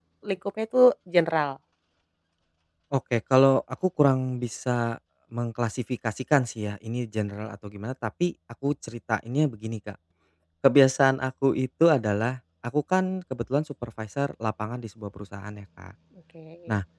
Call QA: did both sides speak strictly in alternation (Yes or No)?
Yes